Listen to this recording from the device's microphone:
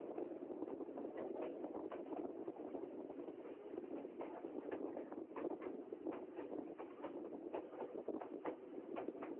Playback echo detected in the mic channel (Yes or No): No